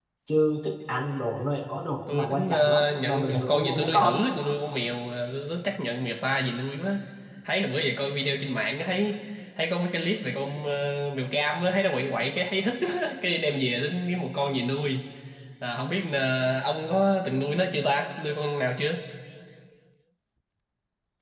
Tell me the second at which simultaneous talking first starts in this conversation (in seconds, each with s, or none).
2.1 s